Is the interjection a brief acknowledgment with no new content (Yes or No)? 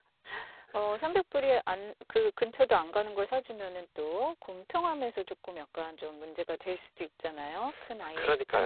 No